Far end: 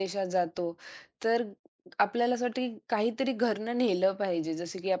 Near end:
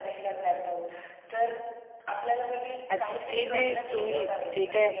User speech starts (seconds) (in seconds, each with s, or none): 2.9 s